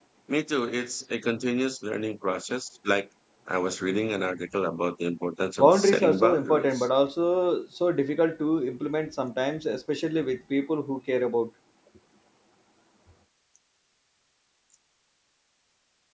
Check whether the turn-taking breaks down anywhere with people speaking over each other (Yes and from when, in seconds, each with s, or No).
Yes, from 5.6 s